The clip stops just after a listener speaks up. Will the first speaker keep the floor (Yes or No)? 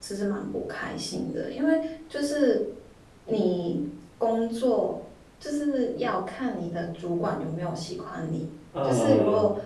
Yes